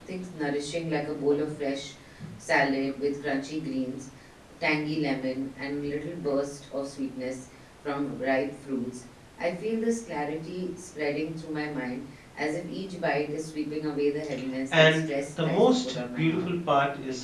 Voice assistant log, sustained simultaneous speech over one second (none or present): present